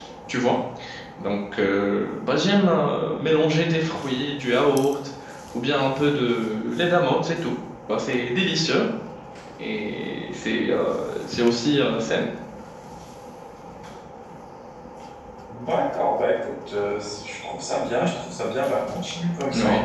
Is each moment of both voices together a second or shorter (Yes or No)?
Yes